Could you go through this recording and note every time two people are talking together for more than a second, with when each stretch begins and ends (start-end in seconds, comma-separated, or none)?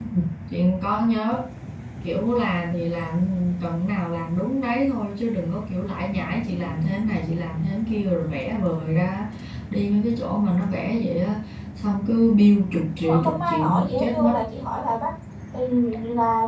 12.9-14.3